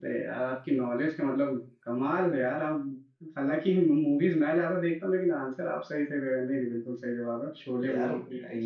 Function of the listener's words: taking over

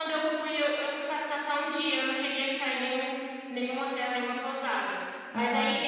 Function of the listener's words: listening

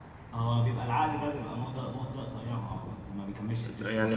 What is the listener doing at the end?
taking over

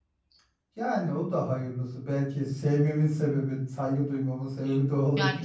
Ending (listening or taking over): taking over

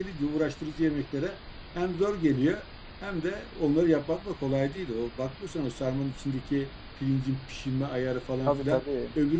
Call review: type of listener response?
listening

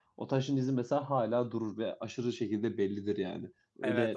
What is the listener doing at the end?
taking over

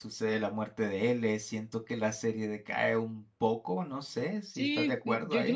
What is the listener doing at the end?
taking over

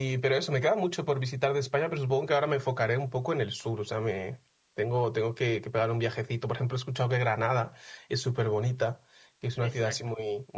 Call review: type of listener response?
listening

